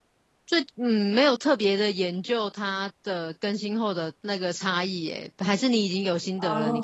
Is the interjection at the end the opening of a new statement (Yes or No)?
Yes